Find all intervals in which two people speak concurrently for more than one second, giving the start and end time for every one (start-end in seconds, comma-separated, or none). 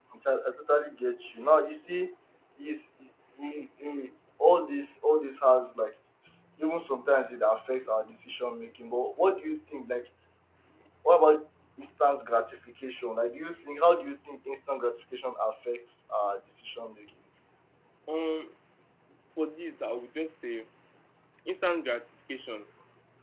none